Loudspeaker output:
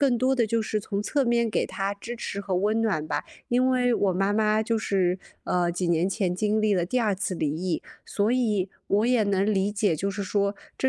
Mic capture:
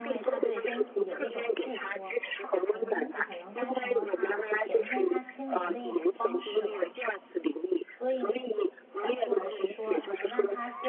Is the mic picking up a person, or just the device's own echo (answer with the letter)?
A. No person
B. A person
B